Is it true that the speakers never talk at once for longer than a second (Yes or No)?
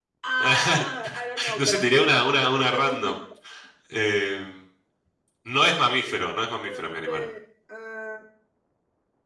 No